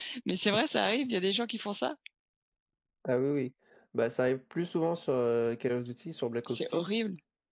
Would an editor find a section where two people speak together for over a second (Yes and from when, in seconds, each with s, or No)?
No